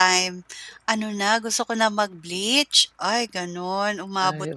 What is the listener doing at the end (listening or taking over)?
listening